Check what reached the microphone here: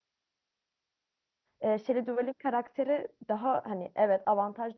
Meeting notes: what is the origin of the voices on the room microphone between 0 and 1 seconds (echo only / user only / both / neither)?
neither